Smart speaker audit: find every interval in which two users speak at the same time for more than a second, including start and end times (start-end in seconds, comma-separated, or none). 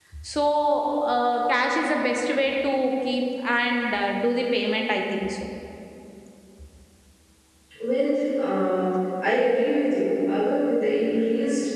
none